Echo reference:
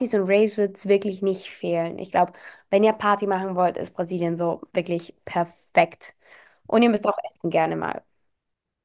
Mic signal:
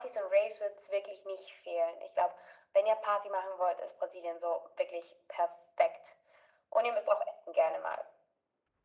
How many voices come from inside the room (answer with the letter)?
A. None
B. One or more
A